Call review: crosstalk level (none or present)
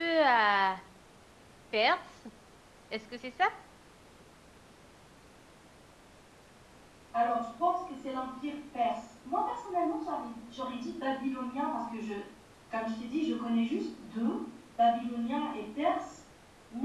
none